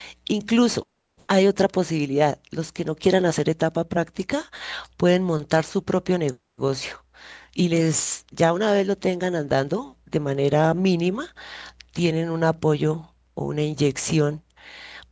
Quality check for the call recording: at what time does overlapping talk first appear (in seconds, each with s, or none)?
none